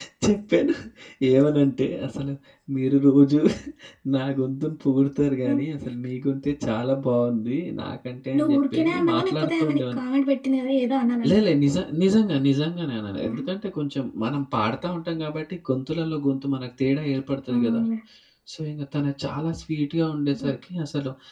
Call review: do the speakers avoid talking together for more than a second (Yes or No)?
No